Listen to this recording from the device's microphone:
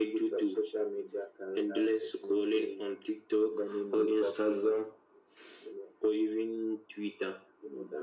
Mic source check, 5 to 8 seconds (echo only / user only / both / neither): echo only